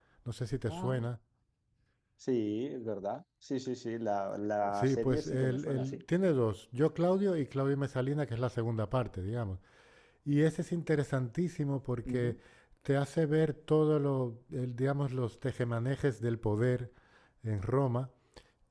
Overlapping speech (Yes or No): Yes